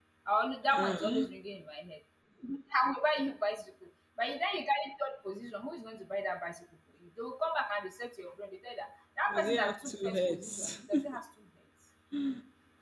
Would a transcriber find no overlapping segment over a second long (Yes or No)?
No